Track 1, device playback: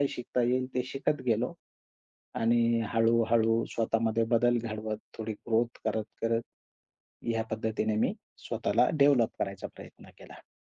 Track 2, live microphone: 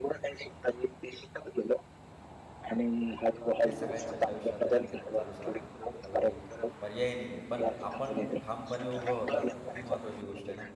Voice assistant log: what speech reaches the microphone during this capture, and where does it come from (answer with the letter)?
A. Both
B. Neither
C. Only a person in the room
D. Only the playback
A